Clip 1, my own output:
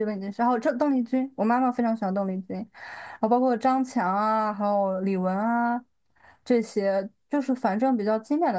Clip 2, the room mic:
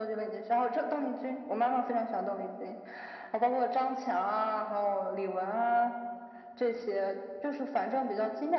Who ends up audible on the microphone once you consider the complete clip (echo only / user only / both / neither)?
echo only